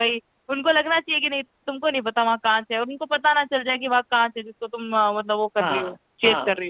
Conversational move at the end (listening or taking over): taking over